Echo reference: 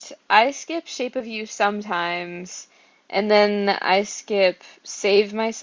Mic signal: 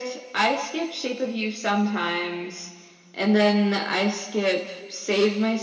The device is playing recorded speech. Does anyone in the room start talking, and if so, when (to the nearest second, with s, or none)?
none